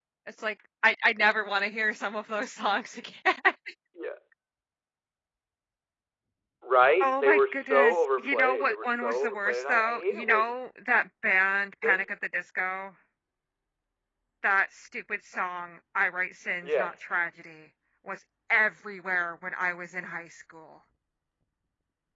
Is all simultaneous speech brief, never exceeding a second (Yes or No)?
No